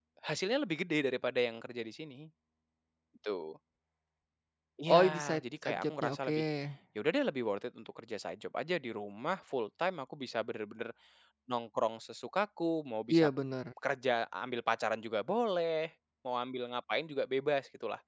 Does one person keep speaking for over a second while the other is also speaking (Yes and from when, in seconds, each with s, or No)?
Yes, from 4.9 s